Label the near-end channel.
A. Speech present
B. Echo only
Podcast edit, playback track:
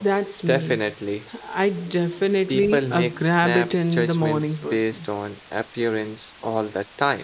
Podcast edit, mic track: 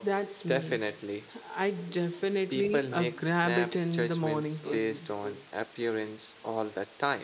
A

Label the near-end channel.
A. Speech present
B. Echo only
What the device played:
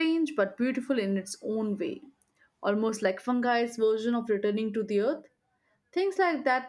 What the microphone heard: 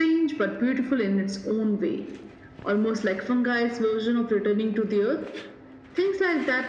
B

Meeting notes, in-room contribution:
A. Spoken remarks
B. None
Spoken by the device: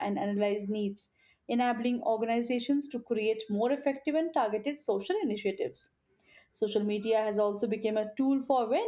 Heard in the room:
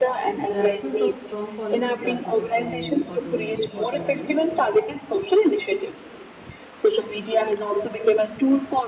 A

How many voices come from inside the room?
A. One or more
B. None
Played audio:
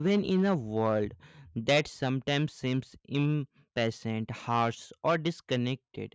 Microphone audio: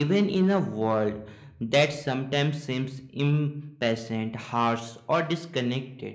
B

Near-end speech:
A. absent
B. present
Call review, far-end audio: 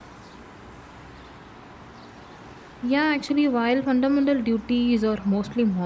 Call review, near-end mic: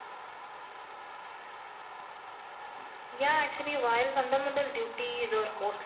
A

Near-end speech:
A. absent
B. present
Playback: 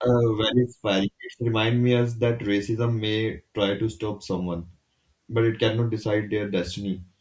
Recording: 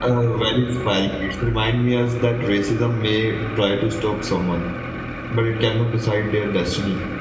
A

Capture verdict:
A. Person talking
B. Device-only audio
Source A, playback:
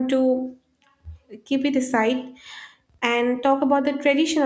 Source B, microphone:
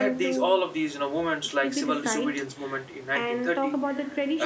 A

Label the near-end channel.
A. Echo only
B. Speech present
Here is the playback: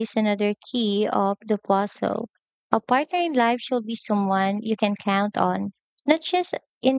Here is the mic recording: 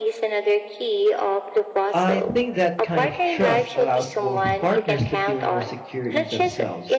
B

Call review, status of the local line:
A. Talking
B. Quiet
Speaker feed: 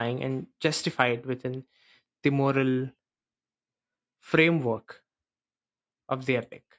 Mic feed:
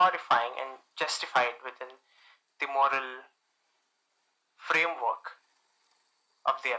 B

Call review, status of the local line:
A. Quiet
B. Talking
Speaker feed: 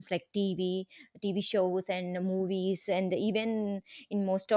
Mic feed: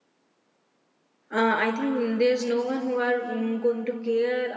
B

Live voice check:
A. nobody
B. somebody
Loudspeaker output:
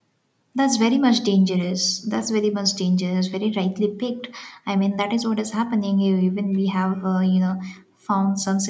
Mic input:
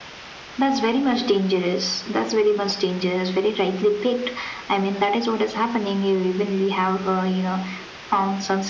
A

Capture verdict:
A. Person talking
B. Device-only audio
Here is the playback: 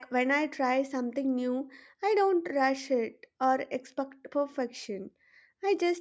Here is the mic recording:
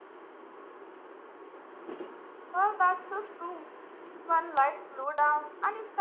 A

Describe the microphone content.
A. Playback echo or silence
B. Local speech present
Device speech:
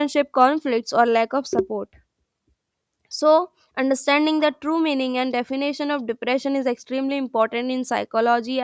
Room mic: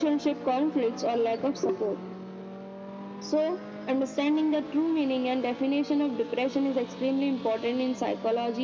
A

